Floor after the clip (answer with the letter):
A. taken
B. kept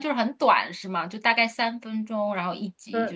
A